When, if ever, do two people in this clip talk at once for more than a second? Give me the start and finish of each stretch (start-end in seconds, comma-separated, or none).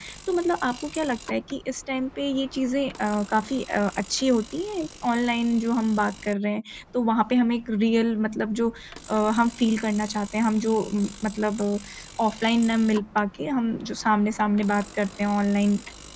none